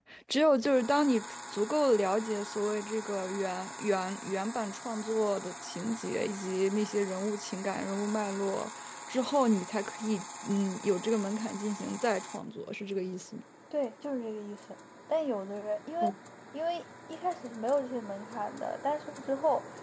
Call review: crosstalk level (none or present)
none